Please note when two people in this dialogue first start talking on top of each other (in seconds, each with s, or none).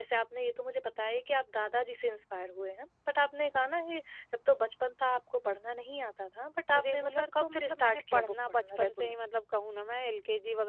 6.7 s